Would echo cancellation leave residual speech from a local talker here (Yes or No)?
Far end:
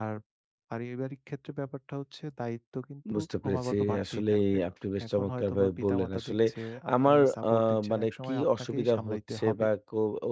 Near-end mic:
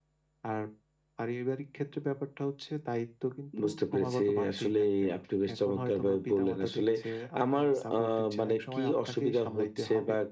No